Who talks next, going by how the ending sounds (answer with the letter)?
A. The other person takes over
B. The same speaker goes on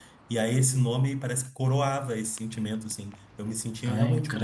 B